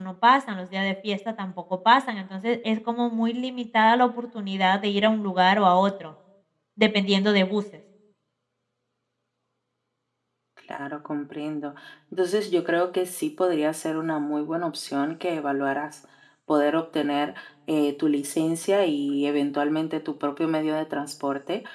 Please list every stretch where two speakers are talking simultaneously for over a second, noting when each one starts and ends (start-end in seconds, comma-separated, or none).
none